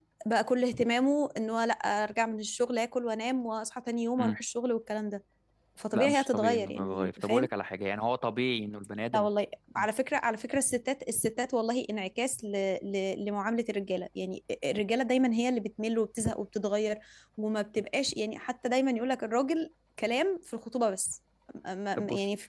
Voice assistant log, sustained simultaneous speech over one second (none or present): present